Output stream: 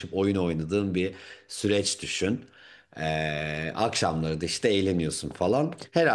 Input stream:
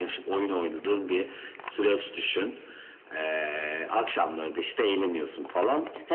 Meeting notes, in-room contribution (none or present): none